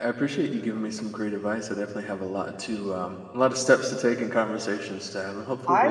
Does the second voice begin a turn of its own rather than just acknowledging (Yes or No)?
Yes